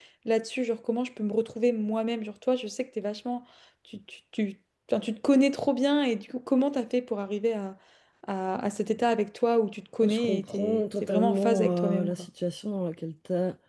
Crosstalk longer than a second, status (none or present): present